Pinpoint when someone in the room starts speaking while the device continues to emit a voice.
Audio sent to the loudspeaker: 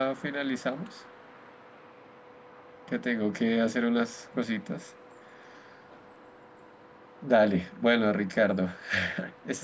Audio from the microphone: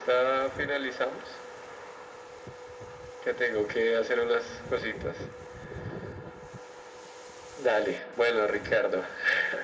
none

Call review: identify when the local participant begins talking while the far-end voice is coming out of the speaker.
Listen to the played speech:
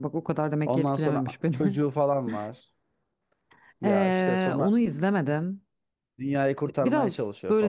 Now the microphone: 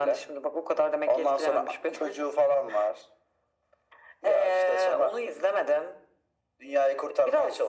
none

